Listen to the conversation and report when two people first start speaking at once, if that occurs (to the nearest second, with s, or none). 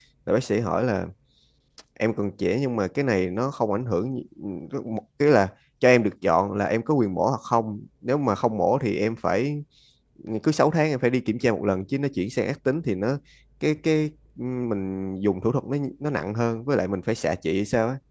none